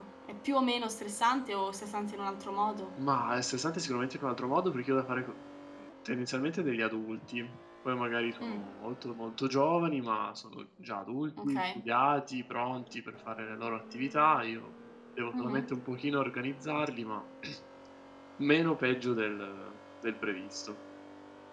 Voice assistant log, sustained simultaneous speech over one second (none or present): none